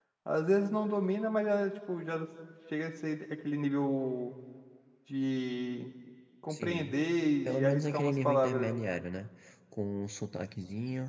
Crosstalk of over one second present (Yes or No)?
Yes